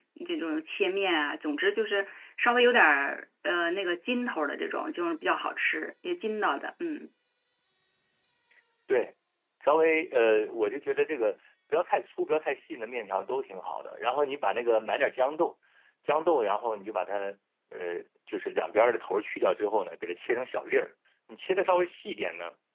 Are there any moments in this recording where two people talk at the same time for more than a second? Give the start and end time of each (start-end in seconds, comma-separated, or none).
none